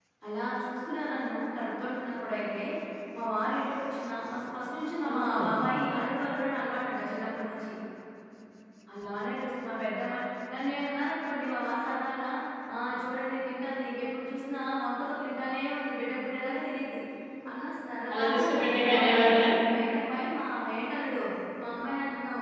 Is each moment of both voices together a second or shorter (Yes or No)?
No